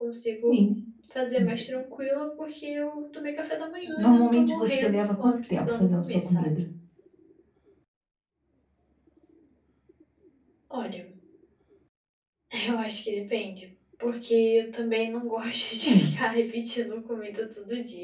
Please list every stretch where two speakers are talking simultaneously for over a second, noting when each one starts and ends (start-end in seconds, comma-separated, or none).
4.0-6.5